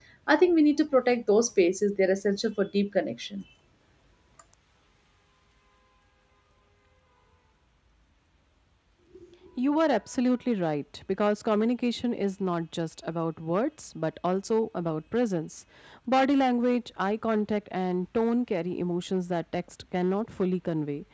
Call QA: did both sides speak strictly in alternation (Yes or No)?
Yes